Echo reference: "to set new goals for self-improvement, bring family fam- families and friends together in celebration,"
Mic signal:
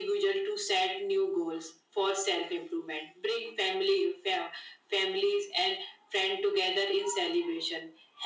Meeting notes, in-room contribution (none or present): none